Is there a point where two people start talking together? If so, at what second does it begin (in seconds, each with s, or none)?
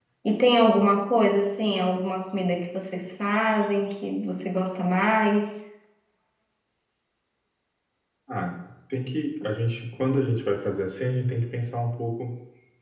none